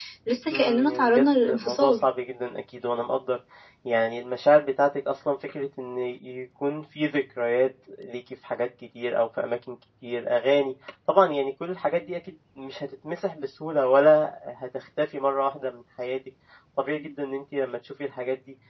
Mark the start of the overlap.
1 s

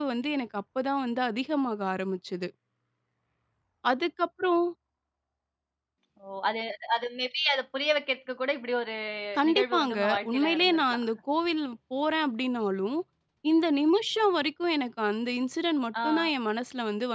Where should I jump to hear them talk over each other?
9 s

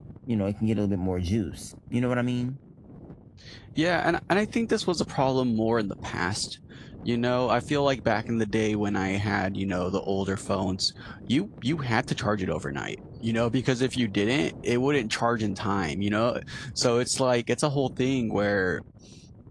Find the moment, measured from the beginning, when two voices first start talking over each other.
none

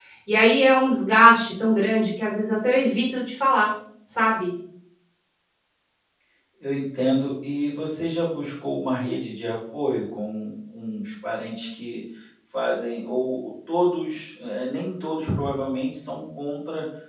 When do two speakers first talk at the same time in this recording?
none

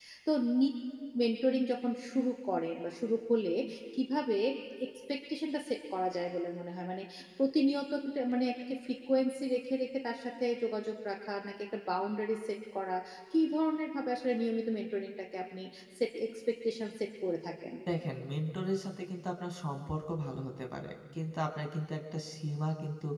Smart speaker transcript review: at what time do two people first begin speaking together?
none

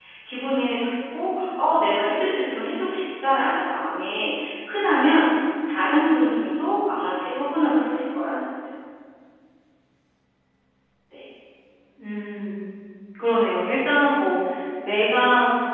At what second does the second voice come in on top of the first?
none

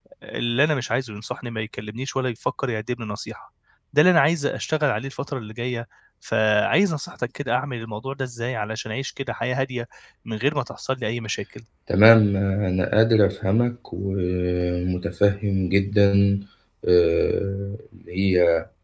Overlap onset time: none

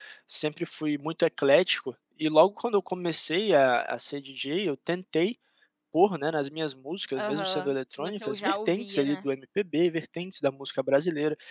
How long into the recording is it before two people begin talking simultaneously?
7 s

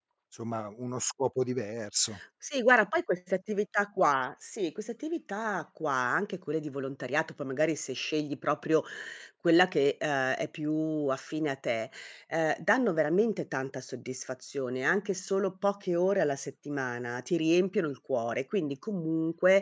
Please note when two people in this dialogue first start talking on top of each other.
none

